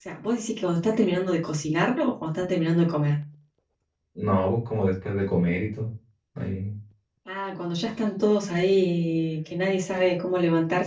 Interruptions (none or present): none